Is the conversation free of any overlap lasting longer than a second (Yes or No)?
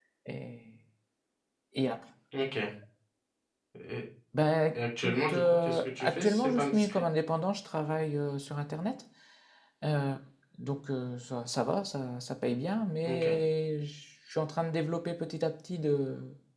No